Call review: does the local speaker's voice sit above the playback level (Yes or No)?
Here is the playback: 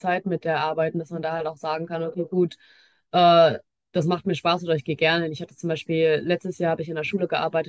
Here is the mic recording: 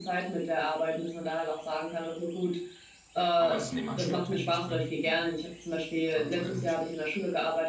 No